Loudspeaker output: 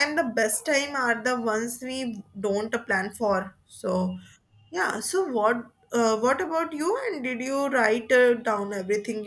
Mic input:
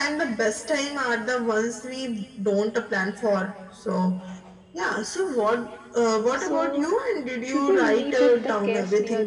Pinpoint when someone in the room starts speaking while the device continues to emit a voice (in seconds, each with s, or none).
6.3 s